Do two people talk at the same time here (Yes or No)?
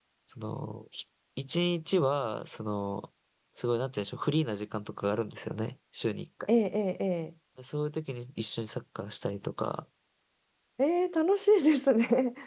No